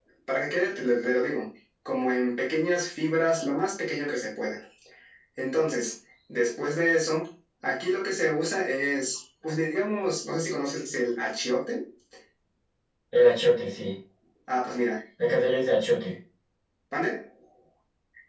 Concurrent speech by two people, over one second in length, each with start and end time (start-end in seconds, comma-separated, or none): none